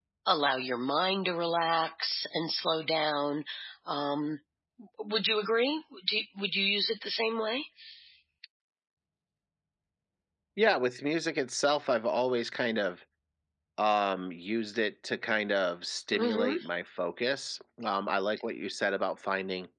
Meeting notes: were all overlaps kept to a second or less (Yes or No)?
Yes